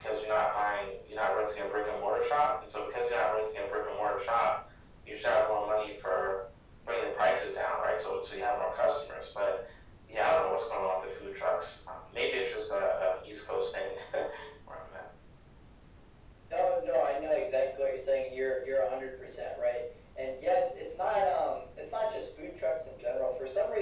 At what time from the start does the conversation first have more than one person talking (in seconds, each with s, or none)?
none